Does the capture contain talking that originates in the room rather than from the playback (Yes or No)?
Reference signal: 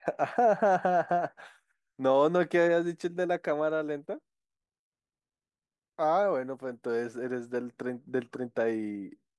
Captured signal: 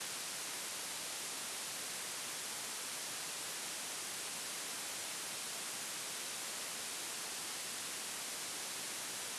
No